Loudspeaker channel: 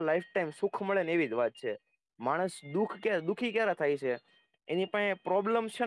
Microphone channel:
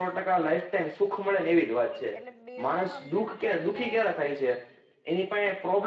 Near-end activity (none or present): present